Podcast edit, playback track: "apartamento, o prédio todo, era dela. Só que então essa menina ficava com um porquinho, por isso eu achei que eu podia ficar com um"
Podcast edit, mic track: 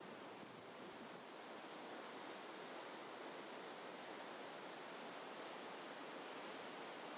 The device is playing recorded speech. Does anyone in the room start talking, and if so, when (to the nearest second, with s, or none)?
none